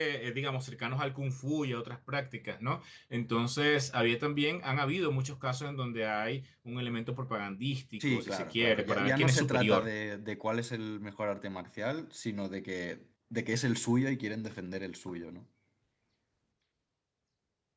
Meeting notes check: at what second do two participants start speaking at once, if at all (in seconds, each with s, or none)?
8.0 s